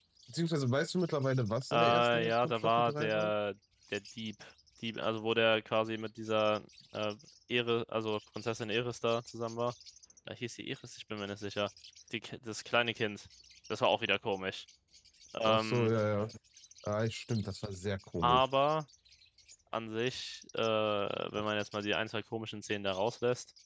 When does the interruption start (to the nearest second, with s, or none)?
2 s